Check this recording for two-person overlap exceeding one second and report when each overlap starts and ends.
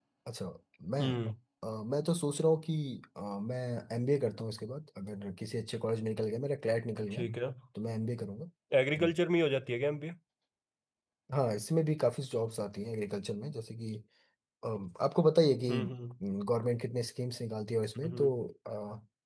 none

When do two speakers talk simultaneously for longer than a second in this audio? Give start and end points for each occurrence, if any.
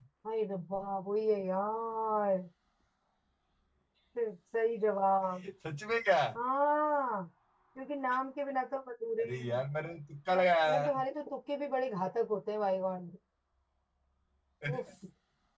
none

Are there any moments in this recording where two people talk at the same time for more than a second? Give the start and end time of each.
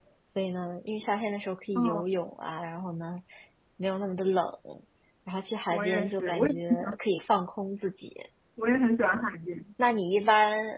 5.7-7.0

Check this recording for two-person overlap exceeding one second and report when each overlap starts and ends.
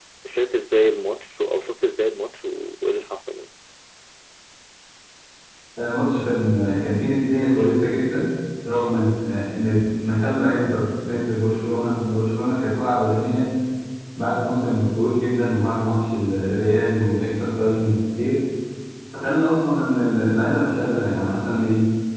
none

